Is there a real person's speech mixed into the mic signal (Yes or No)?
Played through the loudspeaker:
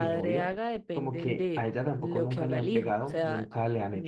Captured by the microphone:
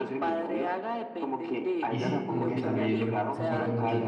Yes